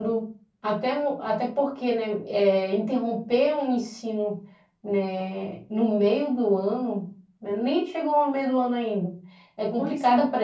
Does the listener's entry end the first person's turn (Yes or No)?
No